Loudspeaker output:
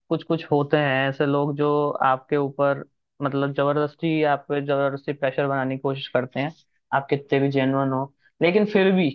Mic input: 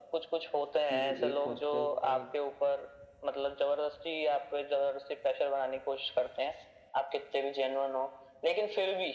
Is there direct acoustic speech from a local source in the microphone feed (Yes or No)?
Yes